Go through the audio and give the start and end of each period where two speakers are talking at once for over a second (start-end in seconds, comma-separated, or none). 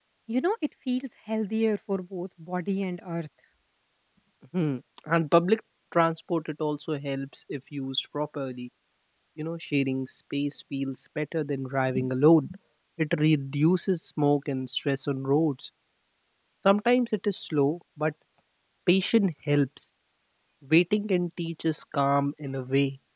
none